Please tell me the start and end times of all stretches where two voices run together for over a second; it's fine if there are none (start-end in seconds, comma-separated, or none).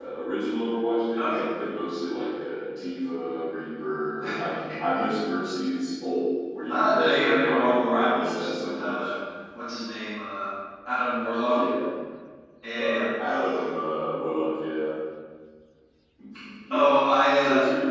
6.7-9.1